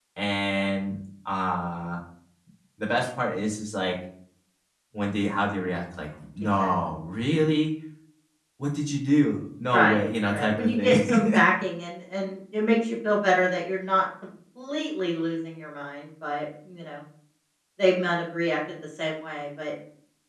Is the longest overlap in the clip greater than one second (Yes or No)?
Yes